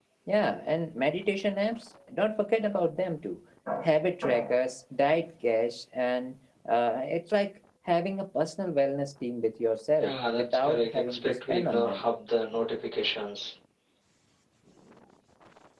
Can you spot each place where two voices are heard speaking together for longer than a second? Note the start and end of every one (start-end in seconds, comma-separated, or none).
10.0-12.0